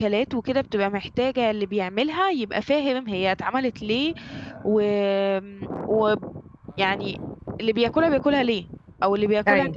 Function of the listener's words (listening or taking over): listening